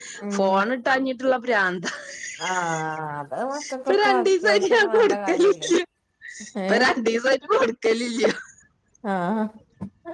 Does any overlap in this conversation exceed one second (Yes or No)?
Yes